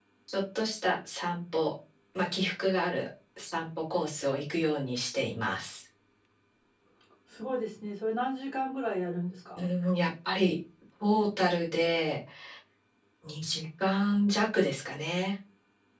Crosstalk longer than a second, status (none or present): none